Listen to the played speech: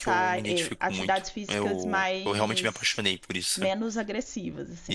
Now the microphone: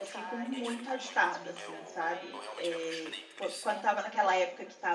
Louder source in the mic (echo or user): user